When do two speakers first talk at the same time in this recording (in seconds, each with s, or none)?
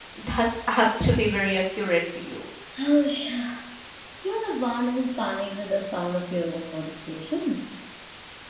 none